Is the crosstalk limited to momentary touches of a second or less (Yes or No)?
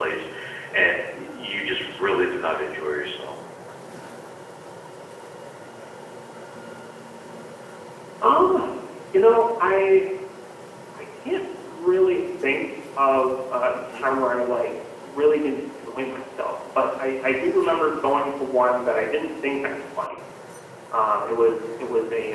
Yes